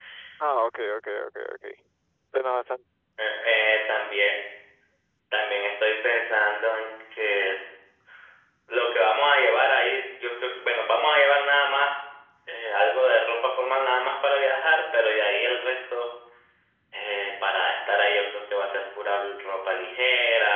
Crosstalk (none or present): none